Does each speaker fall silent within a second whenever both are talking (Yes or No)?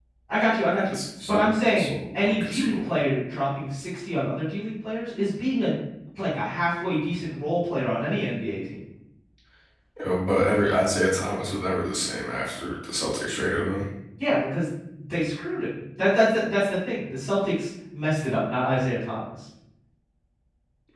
No